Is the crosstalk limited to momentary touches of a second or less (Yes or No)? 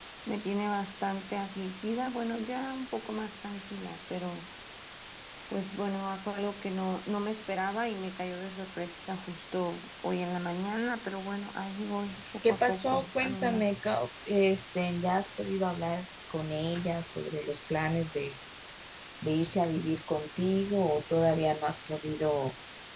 No